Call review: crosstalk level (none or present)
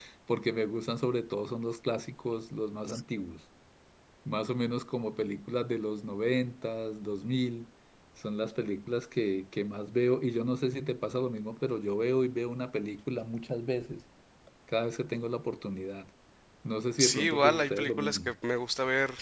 present